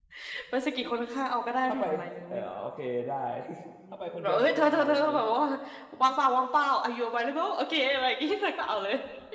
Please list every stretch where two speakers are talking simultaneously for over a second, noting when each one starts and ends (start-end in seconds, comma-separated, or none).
3.9-5.2